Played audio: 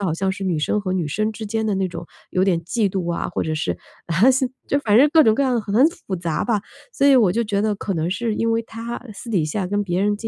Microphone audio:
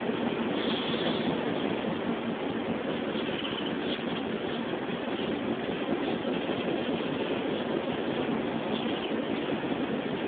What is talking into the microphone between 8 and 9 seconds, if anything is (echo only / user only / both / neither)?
neither